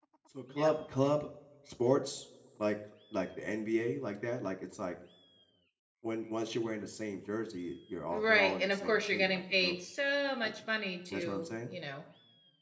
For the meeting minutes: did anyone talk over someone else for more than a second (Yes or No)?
Yes